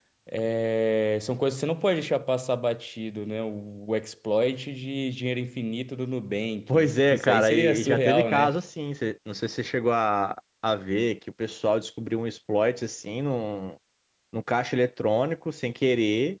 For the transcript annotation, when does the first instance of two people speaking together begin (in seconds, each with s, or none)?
6.7 s